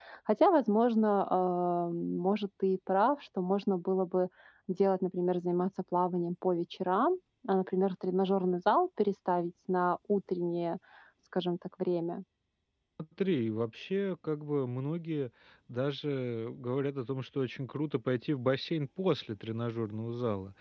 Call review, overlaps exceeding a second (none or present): none